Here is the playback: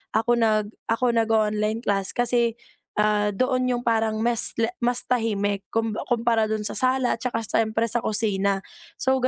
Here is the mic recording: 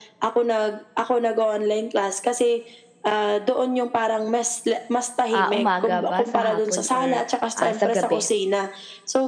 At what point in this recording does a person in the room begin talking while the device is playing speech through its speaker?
5 s

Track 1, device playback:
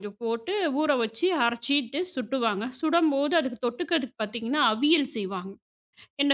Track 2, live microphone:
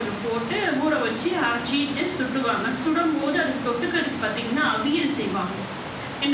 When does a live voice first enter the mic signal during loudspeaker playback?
none

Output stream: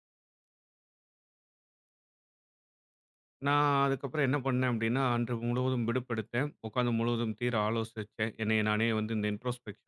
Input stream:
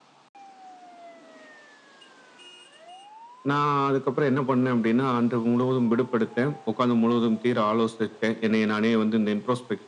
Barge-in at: none

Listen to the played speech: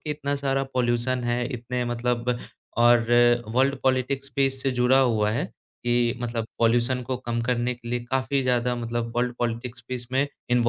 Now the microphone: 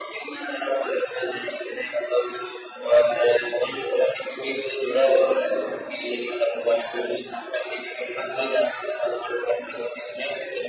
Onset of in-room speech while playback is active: none

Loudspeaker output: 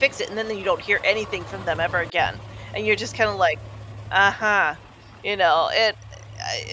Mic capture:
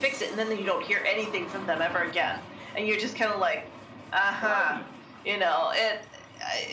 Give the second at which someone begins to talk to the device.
4 s

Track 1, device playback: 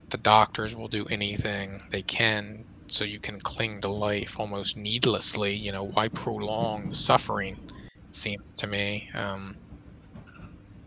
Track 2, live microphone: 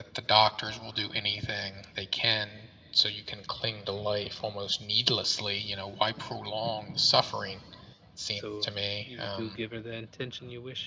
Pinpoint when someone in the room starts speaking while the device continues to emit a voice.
8 s

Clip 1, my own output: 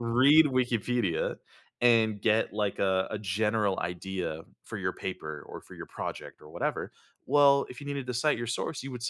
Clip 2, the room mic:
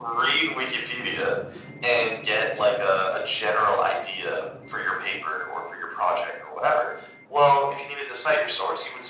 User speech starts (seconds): none

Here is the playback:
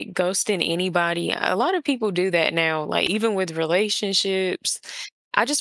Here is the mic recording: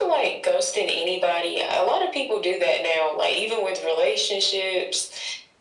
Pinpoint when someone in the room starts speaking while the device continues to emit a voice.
none

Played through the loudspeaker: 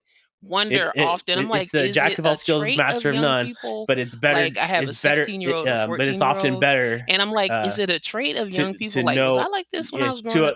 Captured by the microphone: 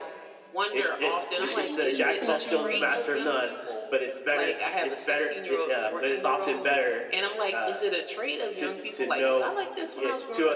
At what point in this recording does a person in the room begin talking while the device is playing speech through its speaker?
1 s

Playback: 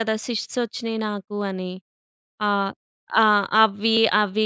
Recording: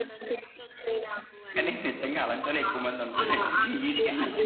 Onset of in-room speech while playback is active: 2 s

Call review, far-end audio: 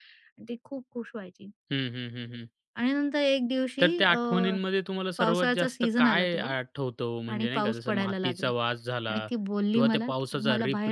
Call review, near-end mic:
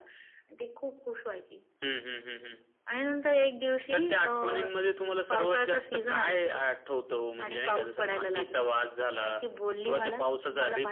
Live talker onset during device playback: none

